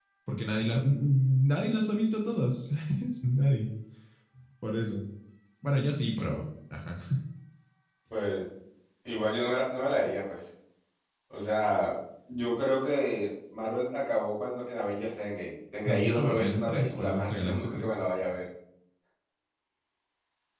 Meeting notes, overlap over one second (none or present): present